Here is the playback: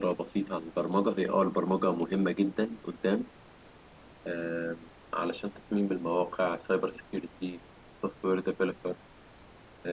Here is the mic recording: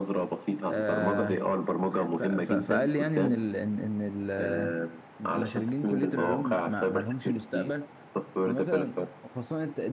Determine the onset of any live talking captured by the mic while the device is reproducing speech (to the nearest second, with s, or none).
1 s